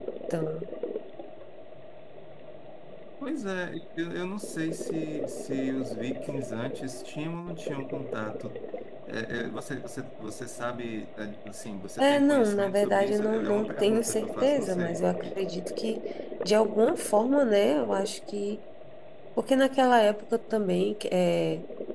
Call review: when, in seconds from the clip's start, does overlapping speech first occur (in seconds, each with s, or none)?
12.0 s